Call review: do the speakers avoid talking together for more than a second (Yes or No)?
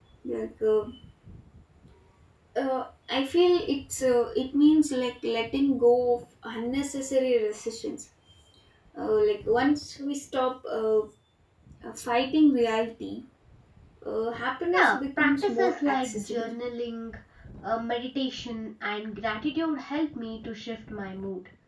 No